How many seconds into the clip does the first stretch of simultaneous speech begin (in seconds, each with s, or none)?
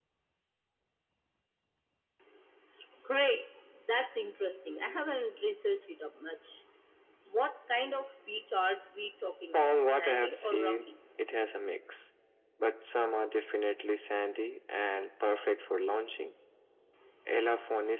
9.5 s